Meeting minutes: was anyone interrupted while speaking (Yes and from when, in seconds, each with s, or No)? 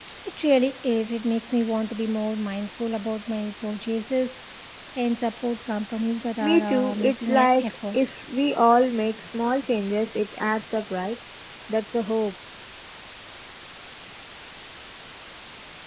Yes, from 6.4 s